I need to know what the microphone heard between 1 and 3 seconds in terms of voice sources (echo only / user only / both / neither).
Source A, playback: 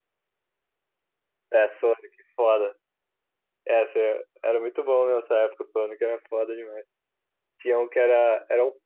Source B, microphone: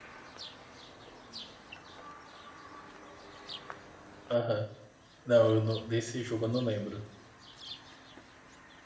neither